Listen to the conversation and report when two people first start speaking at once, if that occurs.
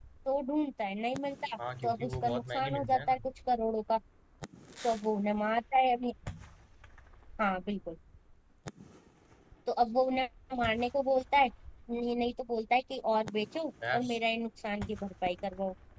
2 s

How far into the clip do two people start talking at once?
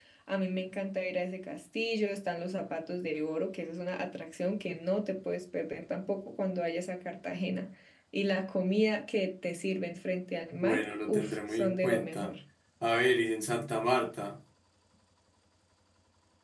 11 s

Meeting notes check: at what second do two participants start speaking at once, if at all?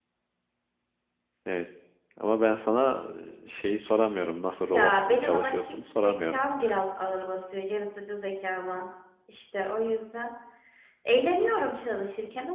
5 s

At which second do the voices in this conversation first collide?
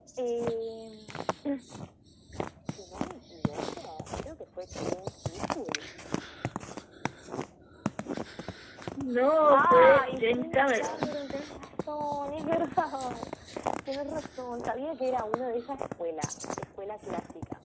9 s

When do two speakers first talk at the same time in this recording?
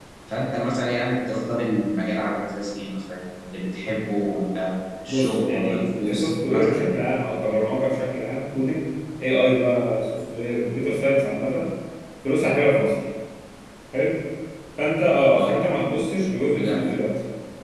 5 s

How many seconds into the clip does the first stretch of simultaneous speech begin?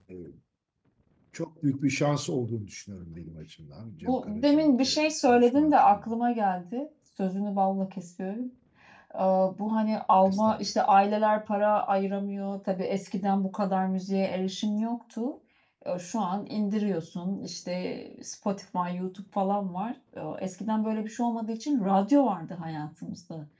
4 s

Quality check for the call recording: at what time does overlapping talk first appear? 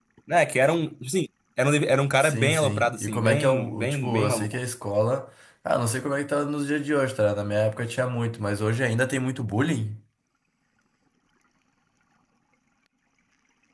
2 s

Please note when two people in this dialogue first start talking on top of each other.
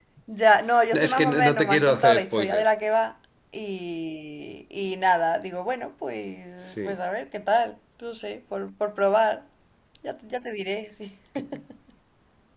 1 s

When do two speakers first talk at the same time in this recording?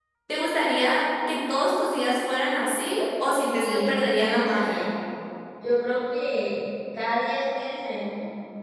4 s

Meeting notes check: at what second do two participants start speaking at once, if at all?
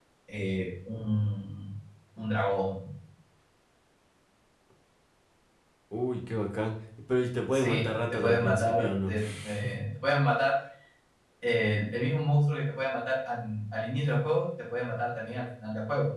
8 s

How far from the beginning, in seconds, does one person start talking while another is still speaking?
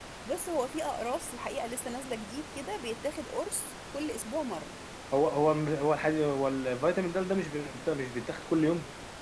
none

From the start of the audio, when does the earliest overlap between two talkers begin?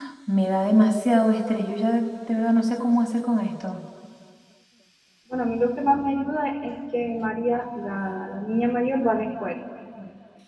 none

